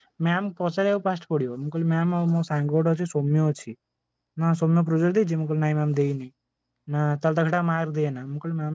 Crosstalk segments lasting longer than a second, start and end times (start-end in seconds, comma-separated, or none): none